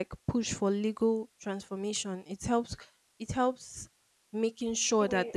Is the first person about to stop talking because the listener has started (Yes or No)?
No